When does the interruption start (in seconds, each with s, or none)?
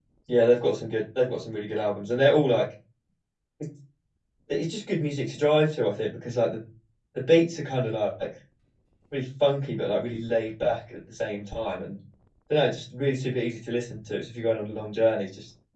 none